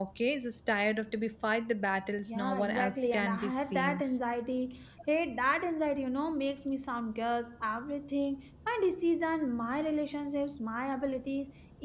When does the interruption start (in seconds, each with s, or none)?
2.3 s